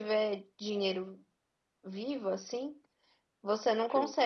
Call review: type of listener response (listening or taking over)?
listening